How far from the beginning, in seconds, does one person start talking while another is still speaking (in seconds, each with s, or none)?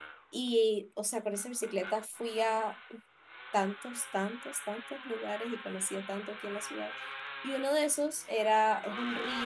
none